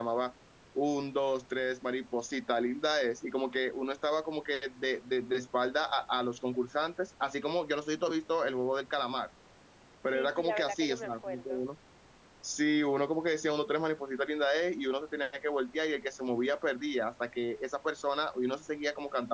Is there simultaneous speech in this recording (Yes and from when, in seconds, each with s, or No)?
Yes, from 10.1 s